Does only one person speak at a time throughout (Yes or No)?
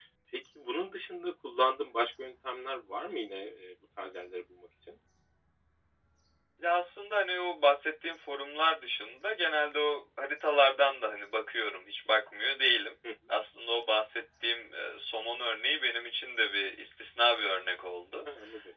Yes